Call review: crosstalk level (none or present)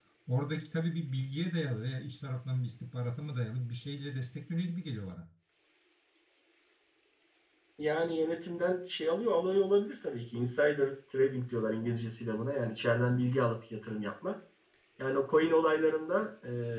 none